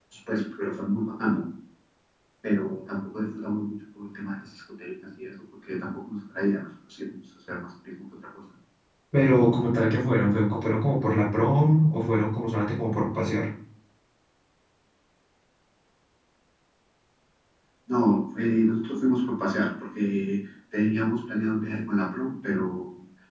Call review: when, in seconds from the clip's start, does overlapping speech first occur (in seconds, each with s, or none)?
none